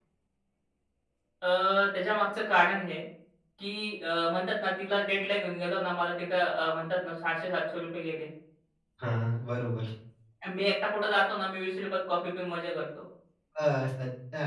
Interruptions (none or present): none